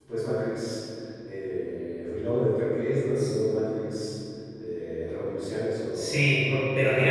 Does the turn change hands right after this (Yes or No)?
Yes